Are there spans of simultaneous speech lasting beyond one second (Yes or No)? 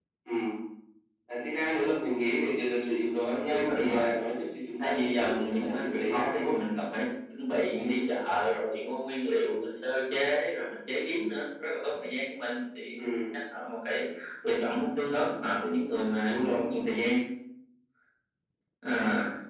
Yes